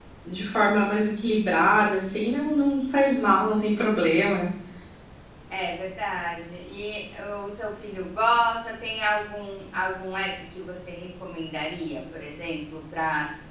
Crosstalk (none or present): none